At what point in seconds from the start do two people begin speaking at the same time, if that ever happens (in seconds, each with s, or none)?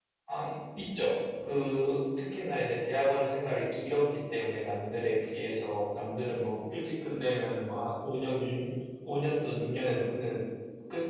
none